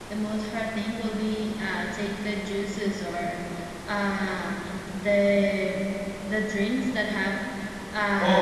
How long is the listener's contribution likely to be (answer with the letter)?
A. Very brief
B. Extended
B